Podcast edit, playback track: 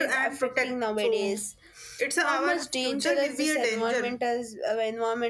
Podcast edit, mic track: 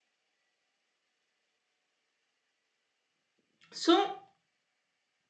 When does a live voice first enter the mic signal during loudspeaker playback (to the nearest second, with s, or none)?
4 s